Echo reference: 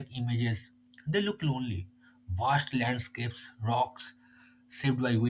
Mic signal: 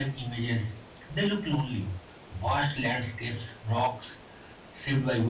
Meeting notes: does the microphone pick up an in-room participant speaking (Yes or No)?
No